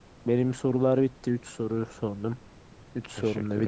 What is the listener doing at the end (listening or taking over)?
taking over